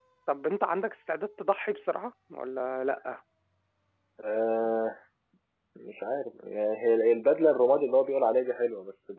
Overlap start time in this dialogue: none

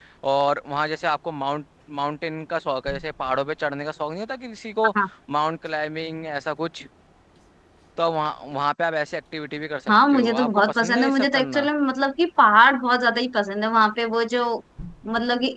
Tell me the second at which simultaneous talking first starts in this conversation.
9.9 s

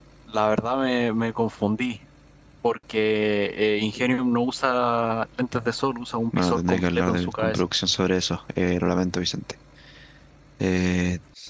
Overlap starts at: 6.3 s

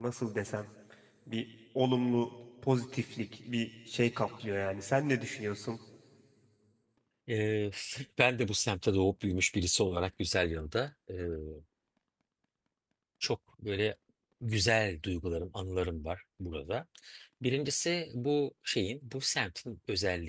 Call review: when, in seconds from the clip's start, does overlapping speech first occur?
none

